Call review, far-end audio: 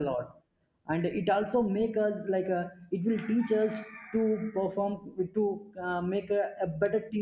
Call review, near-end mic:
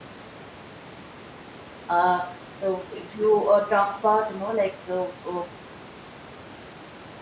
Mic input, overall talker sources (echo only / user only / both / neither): user only